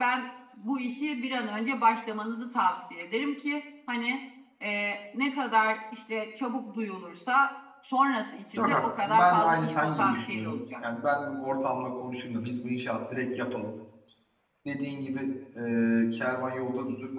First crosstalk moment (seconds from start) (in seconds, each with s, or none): 8.6 s